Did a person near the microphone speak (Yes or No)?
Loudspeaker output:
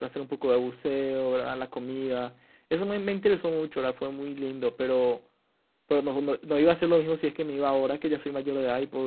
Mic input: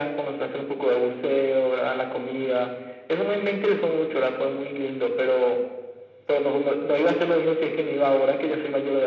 No